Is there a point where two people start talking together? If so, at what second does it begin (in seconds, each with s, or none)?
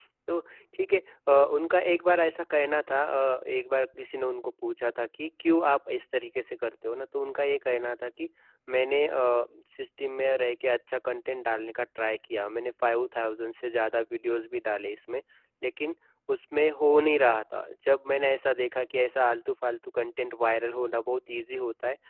none